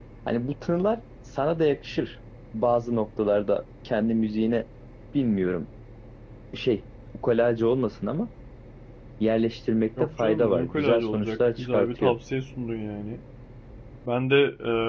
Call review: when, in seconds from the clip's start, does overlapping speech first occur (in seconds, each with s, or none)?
10.0 s